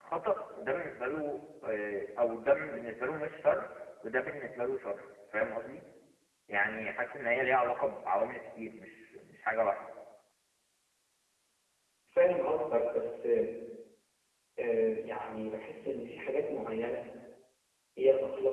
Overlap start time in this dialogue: none

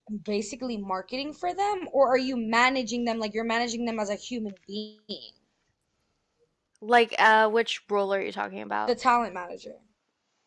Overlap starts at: none

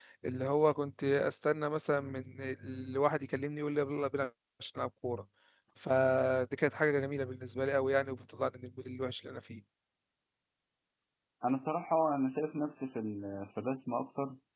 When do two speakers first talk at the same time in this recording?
none

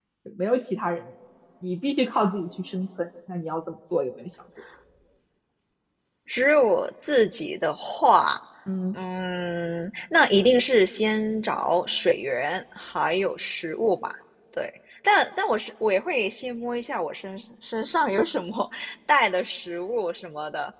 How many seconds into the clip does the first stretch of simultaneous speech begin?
none

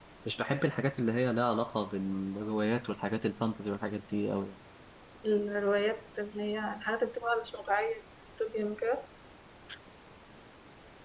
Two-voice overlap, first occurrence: none

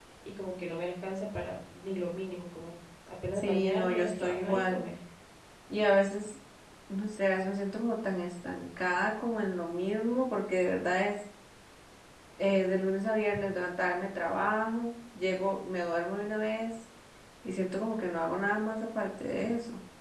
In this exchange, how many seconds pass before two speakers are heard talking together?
3.3 s

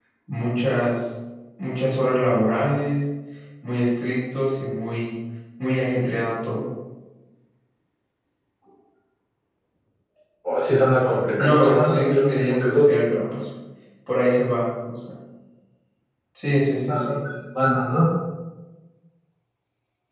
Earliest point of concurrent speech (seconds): 11.4 s

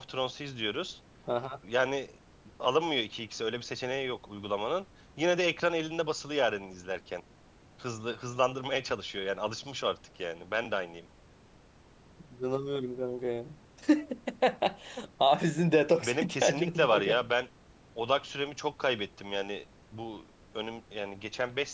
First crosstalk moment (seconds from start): 16.0 s

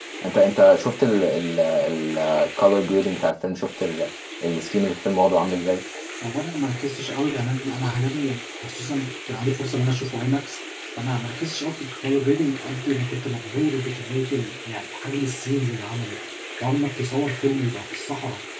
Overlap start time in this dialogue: none

